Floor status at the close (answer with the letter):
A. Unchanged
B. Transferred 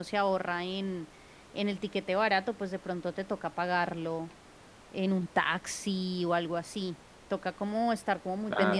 A